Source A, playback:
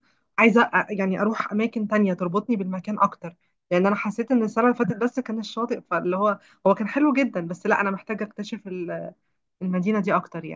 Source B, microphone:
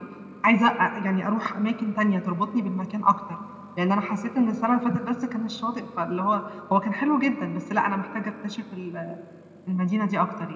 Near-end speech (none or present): none